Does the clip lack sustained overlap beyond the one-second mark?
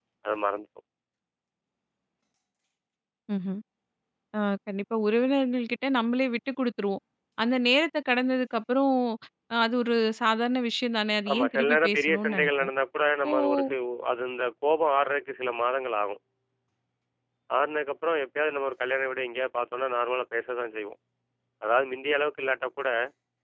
No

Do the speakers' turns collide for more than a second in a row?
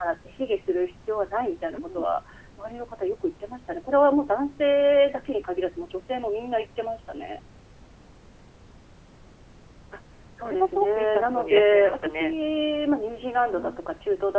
Yes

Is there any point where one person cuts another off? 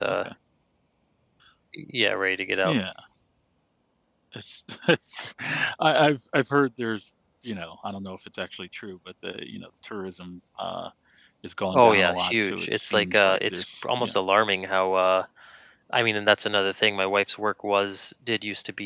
Yes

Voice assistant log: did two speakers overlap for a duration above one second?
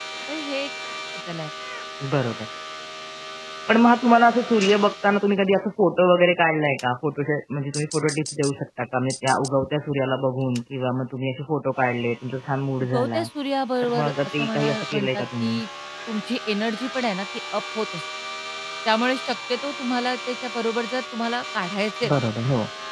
Yes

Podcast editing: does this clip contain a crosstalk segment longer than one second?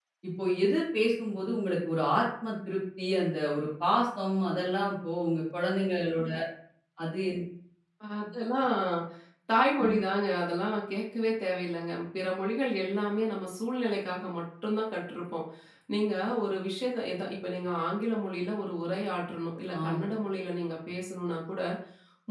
No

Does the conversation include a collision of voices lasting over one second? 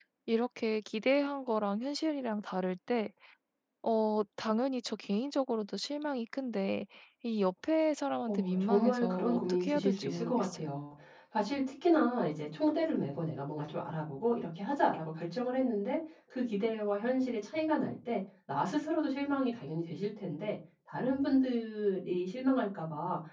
Yes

